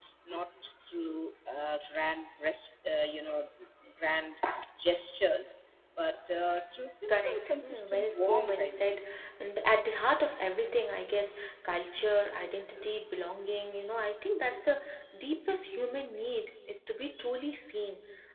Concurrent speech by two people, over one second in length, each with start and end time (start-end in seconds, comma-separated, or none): 7.1-9.0